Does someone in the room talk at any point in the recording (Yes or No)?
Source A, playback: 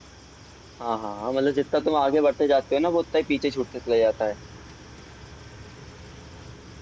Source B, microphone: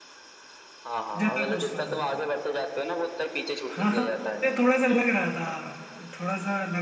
Yes